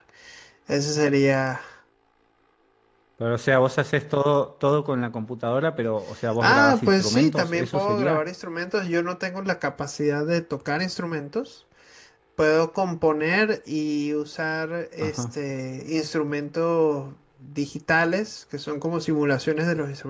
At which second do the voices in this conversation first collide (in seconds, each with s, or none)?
6.4 s